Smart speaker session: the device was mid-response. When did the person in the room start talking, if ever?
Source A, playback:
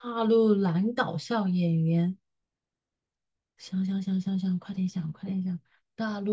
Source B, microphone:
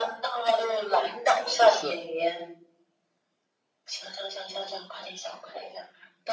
2 s

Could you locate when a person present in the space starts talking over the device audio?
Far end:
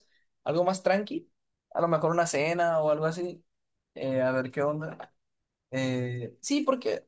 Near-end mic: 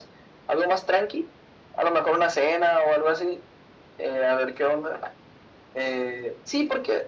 none

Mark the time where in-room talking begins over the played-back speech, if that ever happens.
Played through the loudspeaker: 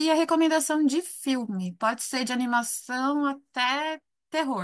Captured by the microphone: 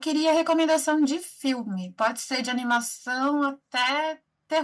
none

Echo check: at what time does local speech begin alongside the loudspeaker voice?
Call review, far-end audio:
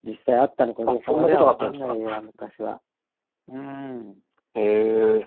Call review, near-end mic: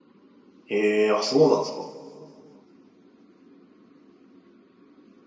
1 s

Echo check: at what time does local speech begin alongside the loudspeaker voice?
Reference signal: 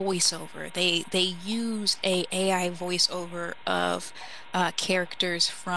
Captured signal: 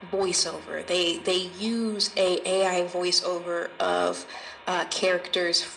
none

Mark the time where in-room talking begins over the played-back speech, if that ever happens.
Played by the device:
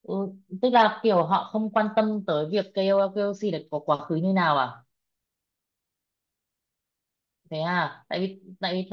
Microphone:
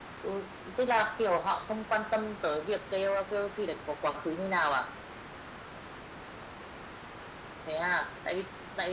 none

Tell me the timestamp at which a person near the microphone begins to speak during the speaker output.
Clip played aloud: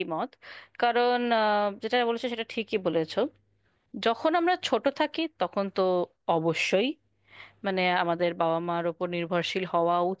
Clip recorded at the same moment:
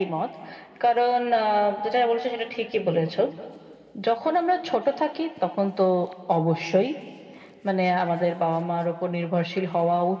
none

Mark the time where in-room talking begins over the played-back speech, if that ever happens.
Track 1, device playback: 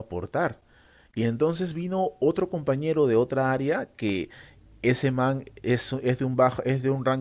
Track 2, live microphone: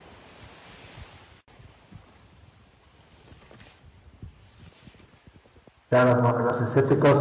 6 s

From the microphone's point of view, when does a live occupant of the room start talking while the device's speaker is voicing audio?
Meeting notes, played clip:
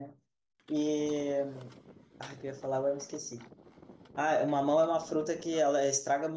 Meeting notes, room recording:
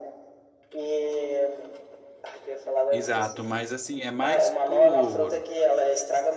3 s

